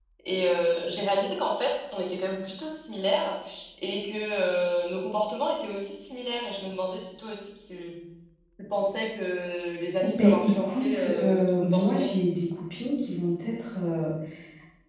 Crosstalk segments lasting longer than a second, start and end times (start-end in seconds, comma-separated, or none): 10.2-12.1